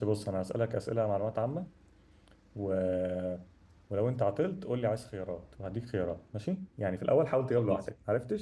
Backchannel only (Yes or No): Yes